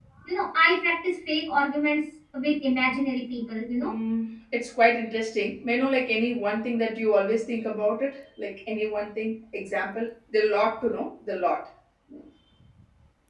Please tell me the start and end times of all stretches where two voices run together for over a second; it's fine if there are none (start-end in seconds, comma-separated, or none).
none